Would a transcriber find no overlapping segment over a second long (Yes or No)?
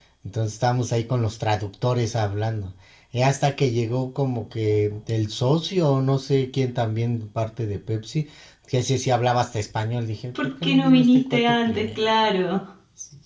No